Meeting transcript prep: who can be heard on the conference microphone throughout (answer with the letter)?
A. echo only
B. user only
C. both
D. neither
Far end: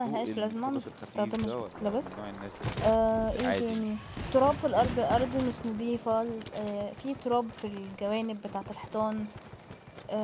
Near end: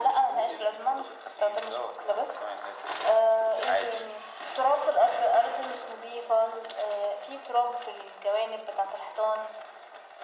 A